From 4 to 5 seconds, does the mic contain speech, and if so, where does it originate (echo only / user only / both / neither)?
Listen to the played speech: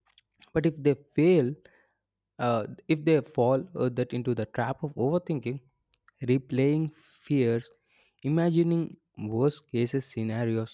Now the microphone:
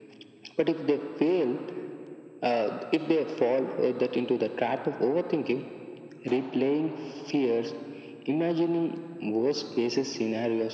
echo only